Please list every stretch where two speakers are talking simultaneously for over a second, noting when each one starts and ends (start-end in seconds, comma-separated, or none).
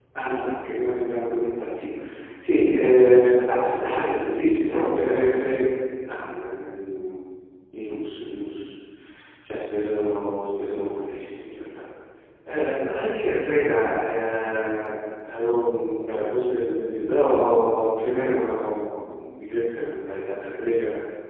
3.8-5.5